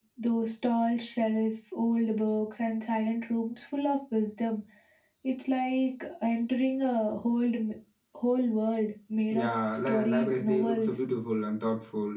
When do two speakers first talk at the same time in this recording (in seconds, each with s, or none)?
9.3 s